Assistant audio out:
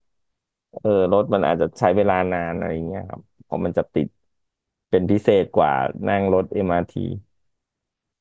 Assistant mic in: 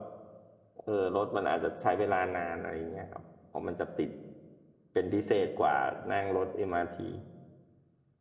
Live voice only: none

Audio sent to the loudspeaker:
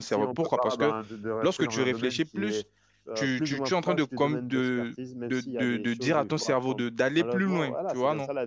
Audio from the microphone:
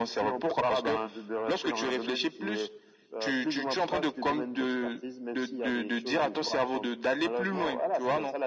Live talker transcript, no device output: none

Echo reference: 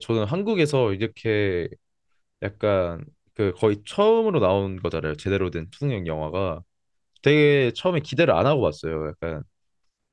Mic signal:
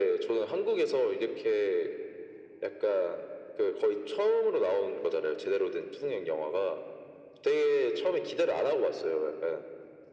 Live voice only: none

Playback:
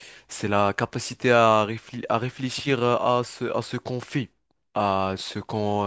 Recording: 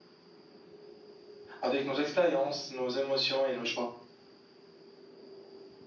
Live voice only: avec nos expériences, nos émotions et nos choix.

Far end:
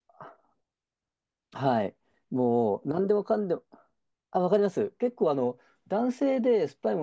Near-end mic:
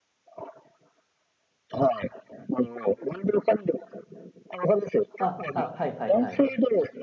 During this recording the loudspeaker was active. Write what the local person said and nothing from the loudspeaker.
あ、あ、はいはいはい。

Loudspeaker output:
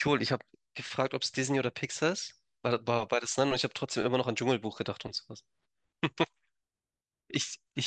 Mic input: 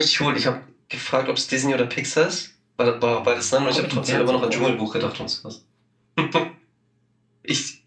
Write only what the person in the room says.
Hm, Komme ich im Fernsehen vor?

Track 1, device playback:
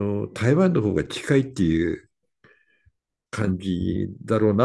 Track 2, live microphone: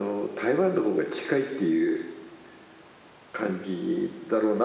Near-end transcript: none

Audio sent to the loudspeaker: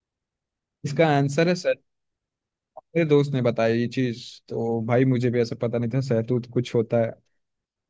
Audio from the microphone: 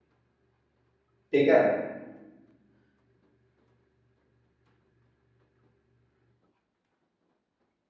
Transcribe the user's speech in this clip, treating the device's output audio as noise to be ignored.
ठीक है

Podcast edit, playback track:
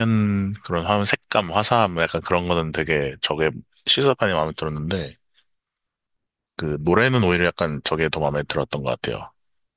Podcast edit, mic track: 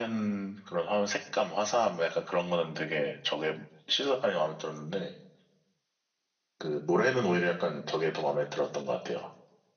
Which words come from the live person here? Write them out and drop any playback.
none

